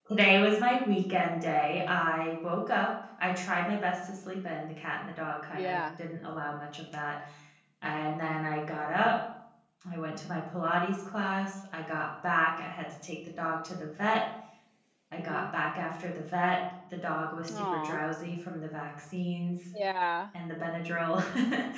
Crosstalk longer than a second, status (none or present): none